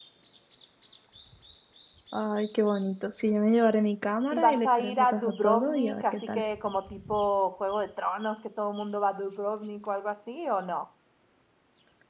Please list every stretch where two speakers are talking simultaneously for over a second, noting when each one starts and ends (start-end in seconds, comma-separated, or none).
4.3-6.4